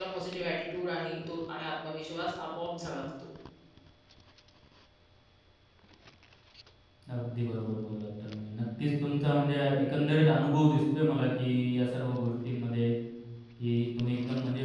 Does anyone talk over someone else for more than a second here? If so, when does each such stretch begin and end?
none

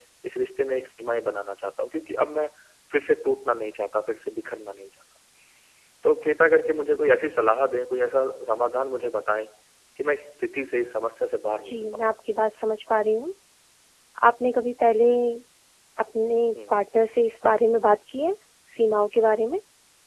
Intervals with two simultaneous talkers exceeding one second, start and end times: none

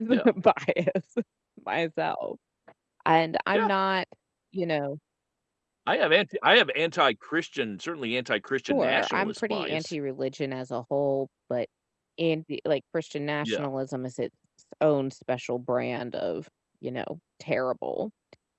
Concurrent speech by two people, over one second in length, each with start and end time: 8.7-9.9

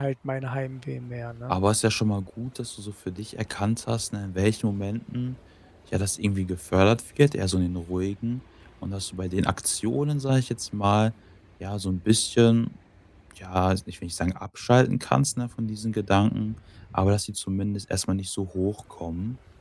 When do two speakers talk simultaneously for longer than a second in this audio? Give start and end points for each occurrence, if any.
none

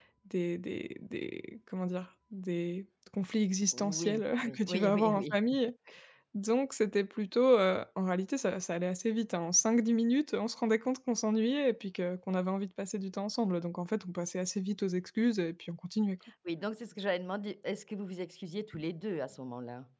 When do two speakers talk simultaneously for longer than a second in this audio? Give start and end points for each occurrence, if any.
3.7-5.3

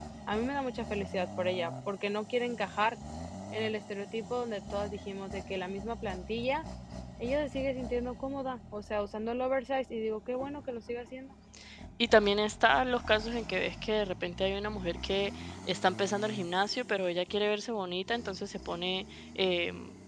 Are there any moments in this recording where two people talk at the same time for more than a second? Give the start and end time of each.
none

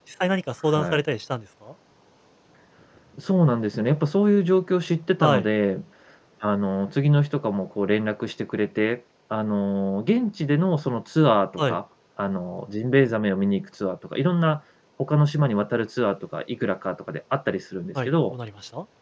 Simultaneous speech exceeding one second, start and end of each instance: none

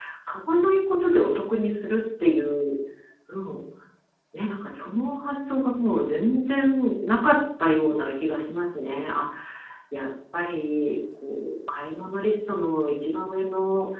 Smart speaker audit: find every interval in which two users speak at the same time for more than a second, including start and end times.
none

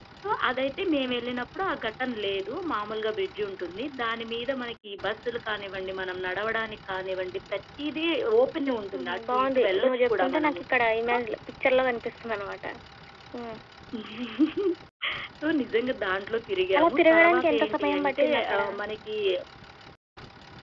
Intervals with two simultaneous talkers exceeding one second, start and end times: 8.9-10.6, 16.8-18.6

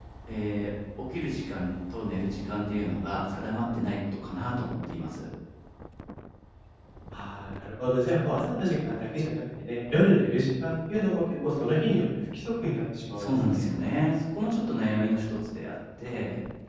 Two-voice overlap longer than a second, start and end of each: none

